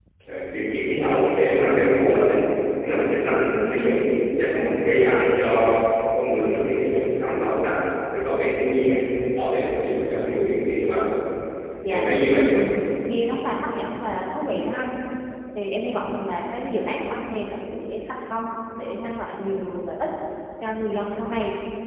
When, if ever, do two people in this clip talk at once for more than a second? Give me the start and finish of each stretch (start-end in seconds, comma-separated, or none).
none